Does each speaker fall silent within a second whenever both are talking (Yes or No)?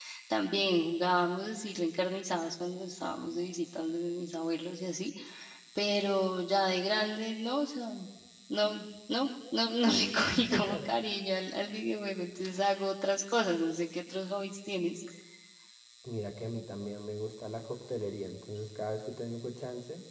Yes